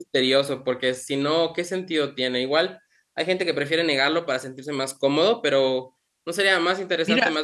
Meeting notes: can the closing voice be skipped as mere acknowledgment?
No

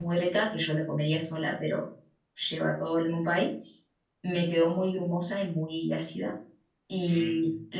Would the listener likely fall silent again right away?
Yes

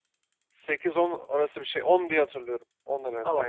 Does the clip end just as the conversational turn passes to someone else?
Yes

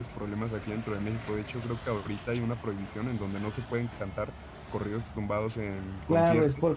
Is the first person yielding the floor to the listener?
Yes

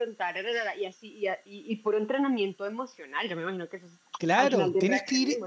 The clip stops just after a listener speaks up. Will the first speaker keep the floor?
No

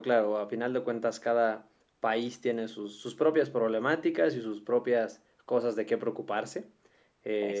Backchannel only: Yes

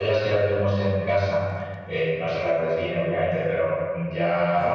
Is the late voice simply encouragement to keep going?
Yes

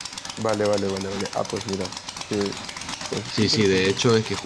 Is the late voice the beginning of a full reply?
Yes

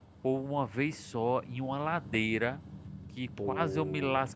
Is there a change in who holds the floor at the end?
No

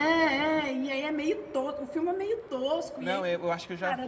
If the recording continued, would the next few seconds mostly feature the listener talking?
Yes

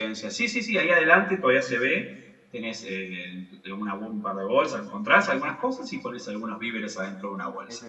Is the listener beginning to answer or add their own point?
Yes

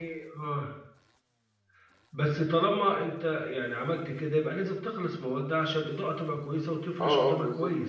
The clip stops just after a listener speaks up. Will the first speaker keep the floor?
No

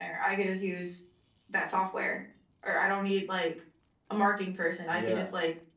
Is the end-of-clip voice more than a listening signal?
No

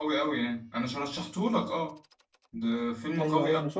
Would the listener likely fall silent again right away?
No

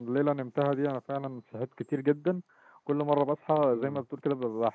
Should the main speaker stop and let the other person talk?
No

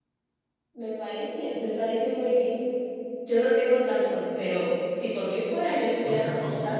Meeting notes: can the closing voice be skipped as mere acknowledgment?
No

